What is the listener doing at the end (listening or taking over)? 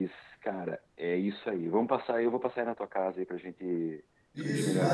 taking over